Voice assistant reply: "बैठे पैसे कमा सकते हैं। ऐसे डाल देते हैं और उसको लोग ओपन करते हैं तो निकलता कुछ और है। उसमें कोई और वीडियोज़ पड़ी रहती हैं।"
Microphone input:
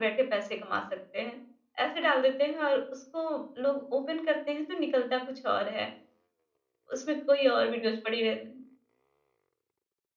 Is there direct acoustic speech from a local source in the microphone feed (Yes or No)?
No